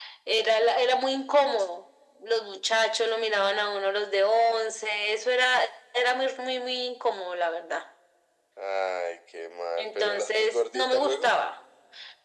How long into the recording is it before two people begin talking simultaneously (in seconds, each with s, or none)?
9.8 s